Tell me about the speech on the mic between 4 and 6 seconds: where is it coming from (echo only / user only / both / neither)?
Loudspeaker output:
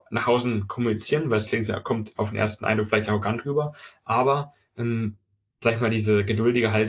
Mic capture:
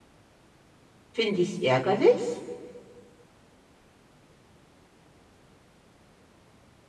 neither